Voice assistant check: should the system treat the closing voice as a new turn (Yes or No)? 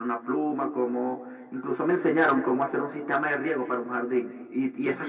No